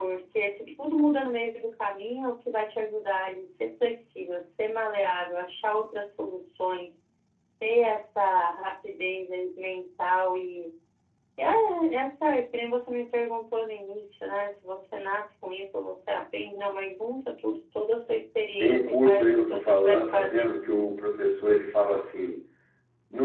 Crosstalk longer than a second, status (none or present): present